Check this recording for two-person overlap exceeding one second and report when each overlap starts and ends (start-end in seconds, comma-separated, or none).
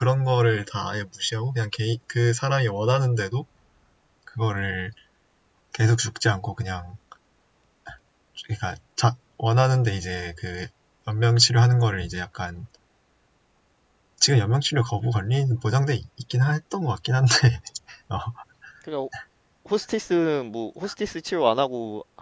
none